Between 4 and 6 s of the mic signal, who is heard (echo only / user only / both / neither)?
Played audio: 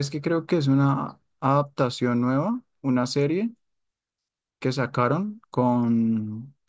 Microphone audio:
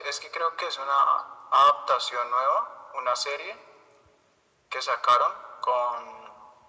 echo only